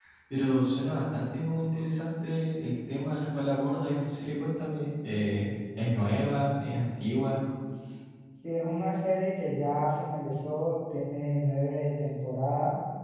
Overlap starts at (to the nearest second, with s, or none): none